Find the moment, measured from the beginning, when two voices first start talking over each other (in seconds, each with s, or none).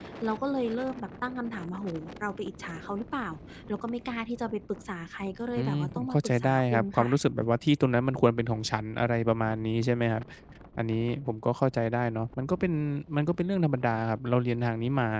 5.6 s